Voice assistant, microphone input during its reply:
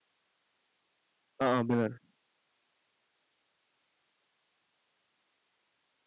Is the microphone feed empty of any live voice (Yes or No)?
No